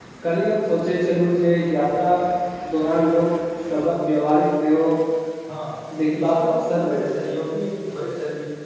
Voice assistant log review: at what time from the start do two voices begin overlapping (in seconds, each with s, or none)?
6.2 s